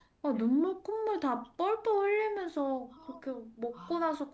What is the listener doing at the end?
listening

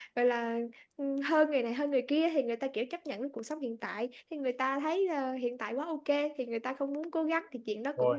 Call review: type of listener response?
listening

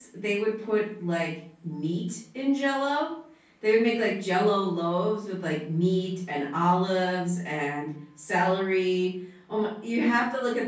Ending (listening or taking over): listening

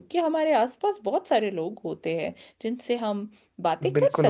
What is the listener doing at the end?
taking over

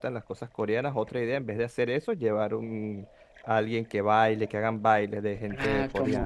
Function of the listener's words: taking over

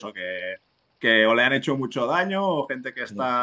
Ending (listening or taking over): listening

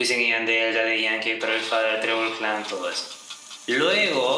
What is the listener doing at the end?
listening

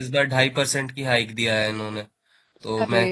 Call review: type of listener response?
listening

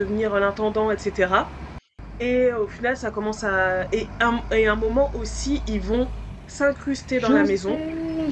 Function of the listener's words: taking over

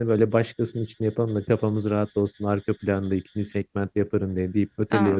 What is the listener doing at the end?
taking over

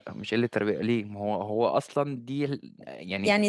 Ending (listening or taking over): taking over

